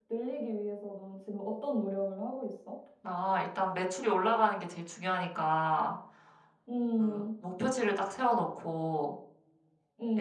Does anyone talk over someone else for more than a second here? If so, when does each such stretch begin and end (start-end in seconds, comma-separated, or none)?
none